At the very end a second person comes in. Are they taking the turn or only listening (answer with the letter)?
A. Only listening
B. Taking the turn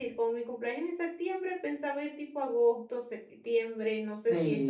B